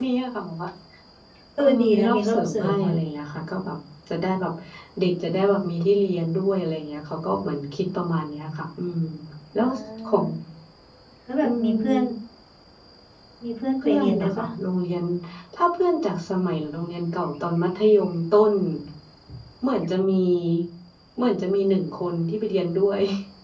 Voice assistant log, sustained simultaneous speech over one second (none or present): present